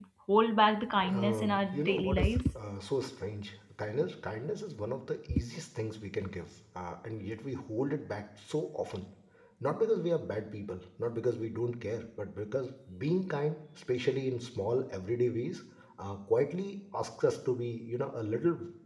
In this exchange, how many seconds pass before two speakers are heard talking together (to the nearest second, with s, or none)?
1 s